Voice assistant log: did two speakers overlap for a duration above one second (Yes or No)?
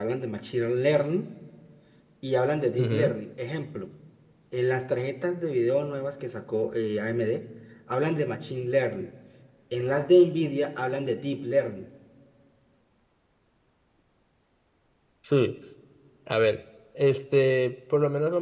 No